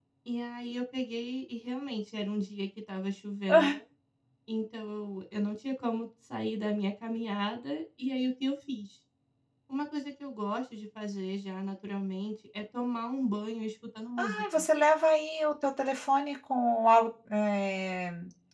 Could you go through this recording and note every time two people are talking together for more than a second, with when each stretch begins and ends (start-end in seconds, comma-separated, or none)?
none